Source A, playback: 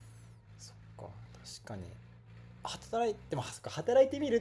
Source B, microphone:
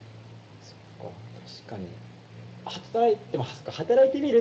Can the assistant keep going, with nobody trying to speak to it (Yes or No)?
Yes